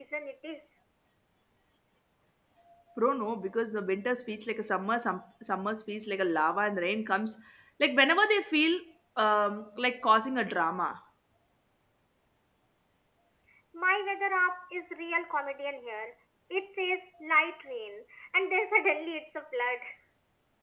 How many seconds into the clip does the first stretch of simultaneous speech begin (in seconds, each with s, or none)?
none